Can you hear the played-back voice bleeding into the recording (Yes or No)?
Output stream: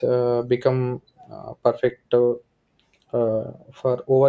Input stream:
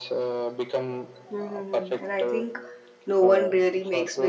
Yes